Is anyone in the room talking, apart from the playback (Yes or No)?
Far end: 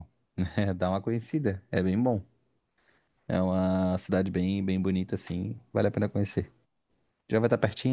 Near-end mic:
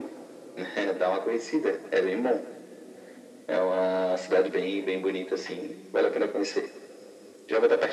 No